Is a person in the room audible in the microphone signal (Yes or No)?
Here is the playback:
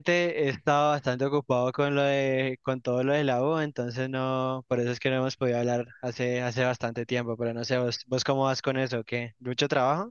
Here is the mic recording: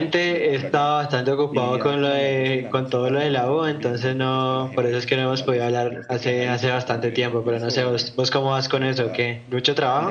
Yes